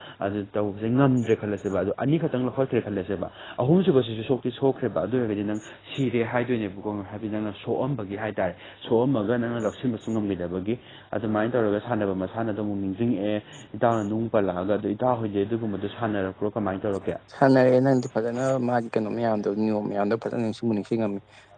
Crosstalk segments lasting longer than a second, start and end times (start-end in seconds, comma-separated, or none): none